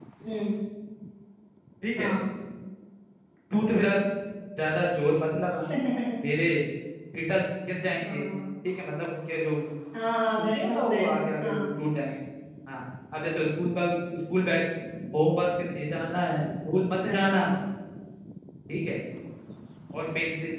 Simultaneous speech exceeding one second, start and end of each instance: 10.4-11.7

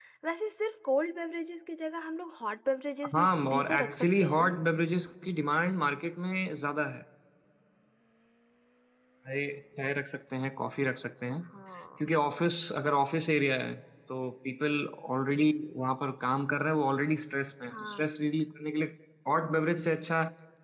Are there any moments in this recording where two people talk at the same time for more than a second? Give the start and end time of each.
3.1-4.5

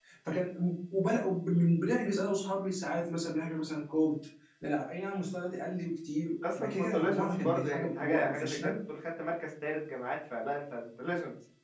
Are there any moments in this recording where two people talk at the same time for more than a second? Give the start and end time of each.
6.5-8.7

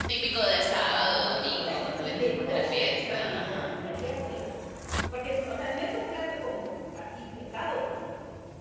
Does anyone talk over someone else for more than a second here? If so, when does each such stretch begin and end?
0.8-3.7

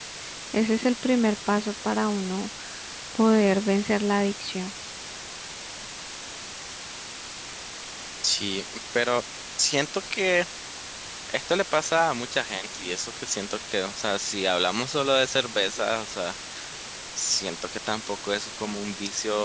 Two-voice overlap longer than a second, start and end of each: none

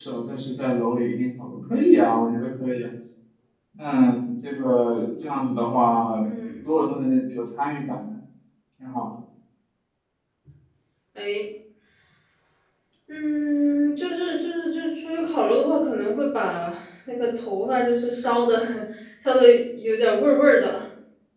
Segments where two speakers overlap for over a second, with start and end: none

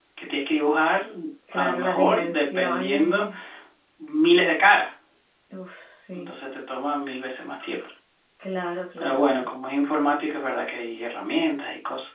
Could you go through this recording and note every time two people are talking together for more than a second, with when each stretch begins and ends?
1.5-3.3

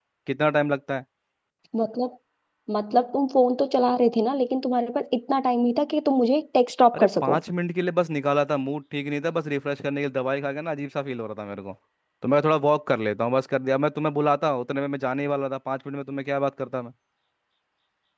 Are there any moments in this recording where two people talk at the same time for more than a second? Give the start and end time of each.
none

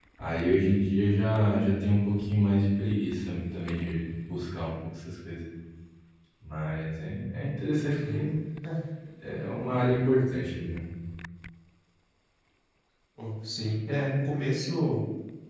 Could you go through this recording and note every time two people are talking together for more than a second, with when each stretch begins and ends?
none

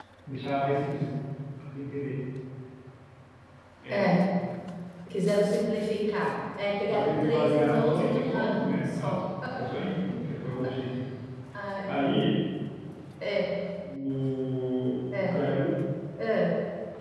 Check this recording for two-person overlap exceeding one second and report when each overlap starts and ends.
6.9-9.2

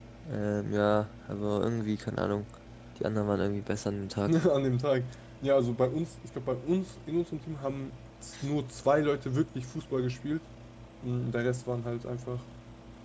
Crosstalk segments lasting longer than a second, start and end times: none

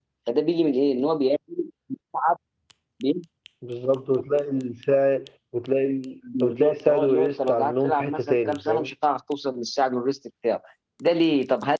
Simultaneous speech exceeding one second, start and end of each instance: 6.4-8.9

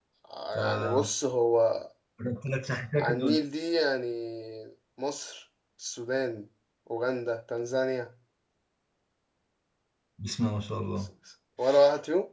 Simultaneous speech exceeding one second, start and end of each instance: none

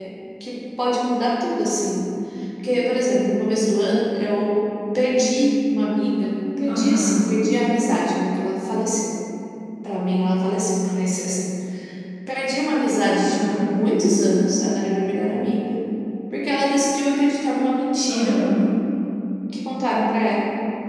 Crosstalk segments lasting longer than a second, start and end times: none

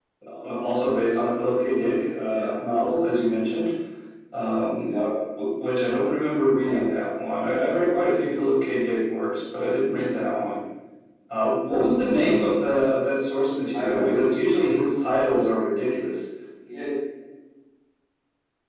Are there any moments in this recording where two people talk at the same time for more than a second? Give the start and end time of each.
none

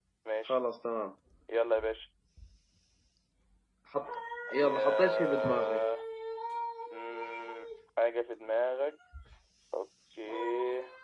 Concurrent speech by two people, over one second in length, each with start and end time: 4.6-5.8

